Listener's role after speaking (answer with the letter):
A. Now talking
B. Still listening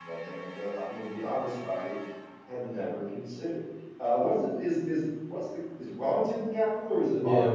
A